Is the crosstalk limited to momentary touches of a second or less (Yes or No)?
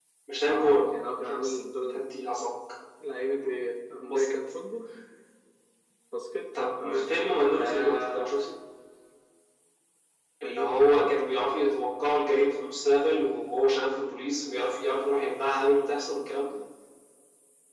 No